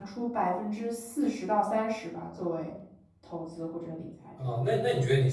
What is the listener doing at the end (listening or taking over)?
taking over